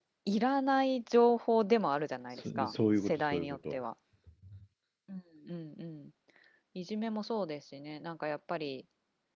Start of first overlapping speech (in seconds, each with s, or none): 2.3 s